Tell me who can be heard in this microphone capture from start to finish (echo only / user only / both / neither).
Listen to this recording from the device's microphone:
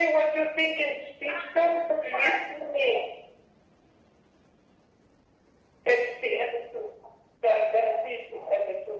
echo only